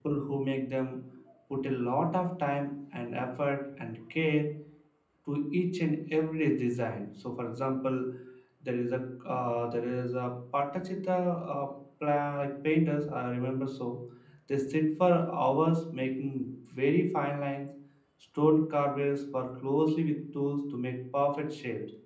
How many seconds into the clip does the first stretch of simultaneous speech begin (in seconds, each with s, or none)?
none